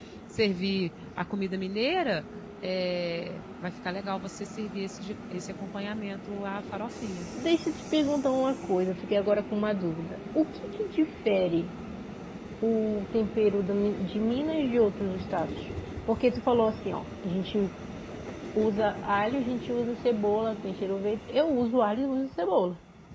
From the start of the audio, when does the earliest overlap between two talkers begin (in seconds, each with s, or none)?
none